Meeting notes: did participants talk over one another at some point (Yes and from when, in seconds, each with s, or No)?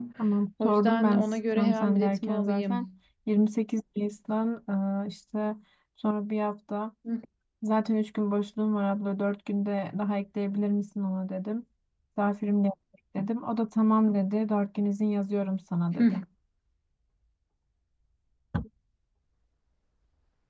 Yes, from 0.6 s